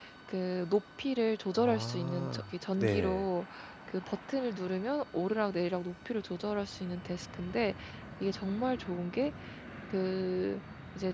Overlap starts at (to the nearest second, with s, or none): 2 s